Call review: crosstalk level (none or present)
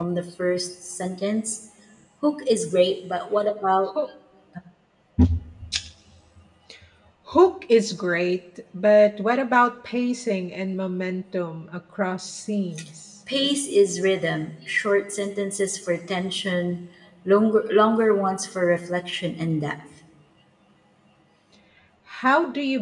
none